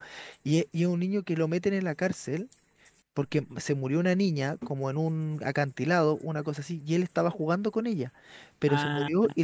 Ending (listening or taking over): listening